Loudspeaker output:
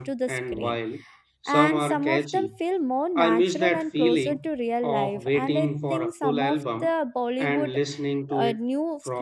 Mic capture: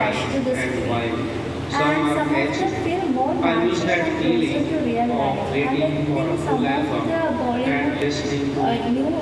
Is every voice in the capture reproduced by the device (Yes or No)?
Yes